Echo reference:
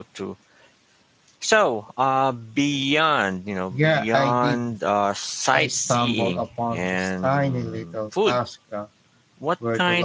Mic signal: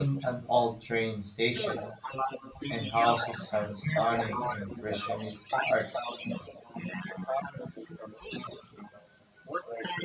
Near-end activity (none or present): present